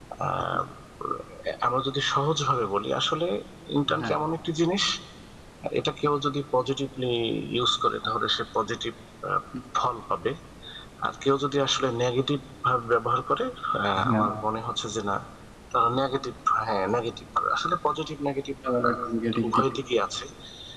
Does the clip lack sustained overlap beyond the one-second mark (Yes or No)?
Yes